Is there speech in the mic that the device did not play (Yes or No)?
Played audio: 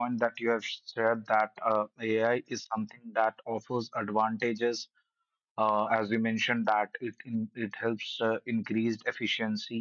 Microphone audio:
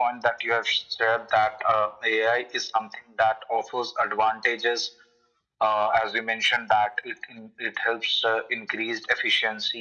No